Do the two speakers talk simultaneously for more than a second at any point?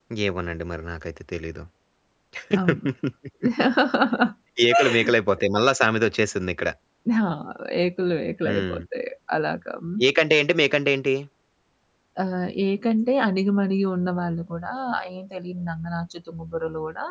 No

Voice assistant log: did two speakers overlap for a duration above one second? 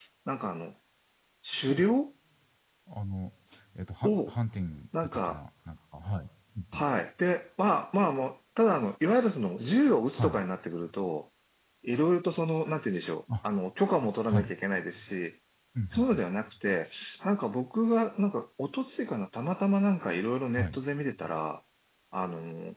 No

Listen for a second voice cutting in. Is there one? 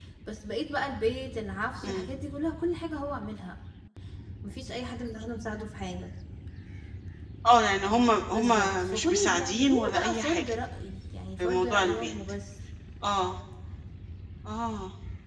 Yes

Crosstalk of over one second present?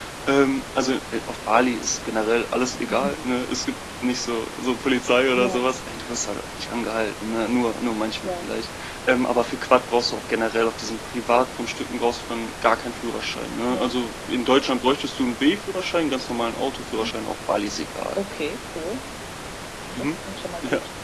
No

